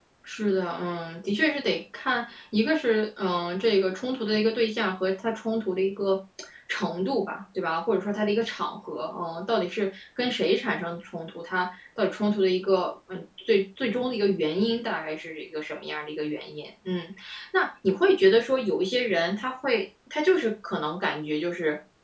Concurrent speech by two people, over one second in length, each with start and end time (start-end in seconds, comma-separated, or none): none